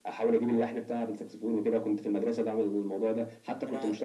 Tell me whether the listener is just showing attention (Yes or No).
Yes